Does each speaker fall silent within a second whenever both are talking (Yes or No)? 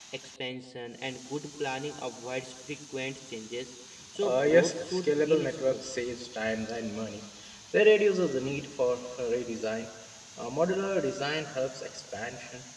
No